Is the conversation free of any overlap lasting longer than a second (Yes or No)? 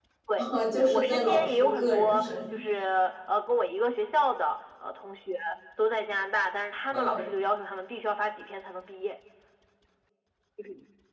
No